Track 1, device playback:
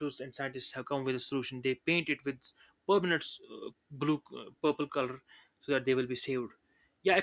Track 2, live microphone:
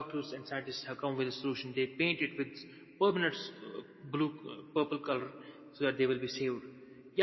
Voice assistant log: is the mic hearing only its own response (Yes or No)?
Yes